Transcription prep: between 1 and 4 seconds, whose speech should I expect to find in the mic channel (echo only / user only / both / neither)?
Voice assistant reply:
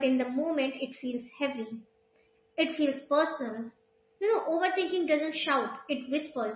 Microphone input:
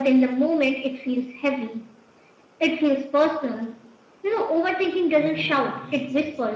echo only